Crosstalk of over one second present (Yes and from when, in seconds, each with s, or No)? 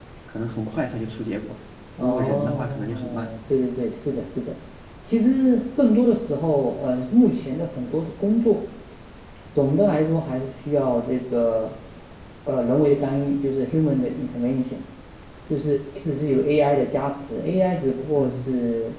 Yes, from 2.0 s